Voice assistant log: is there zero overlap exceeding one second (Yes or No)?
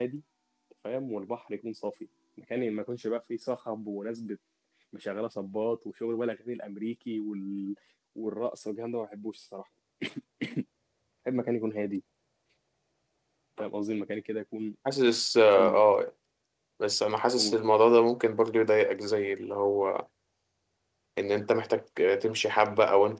Yes